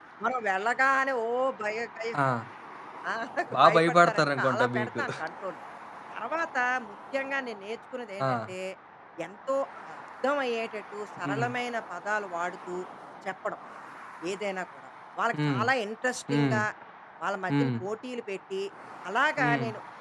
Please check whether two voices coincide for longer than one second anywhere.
Yes, from 3.6 s

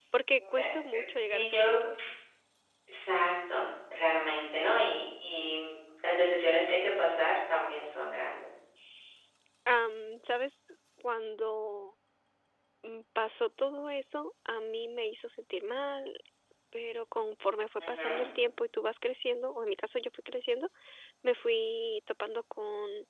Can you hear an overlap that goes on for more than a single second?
No

